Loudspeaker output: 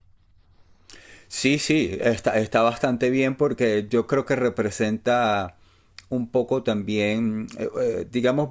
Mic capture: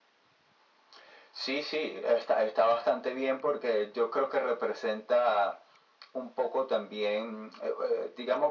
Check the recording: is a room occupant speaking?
No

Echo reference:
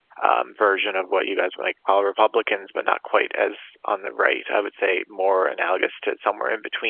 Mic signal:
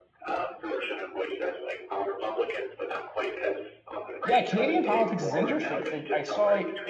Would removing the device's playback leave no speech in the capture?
No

